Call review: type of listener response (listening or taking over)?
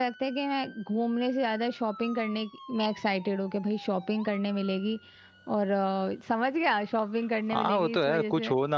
taking over